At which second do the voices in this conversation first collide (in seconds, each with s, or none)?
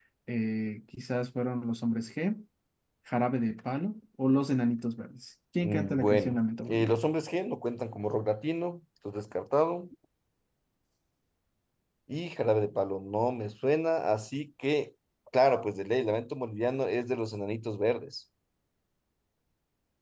5.6 s